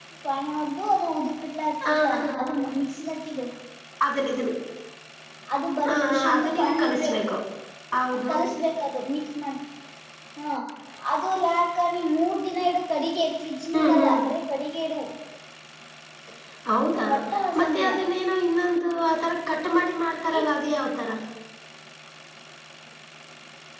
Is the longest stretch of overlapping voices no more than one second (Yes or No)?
No